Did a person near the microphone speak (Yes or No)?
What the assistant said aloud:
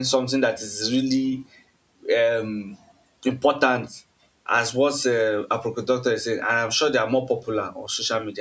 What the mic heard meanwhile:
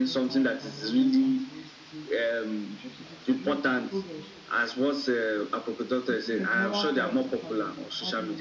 Yes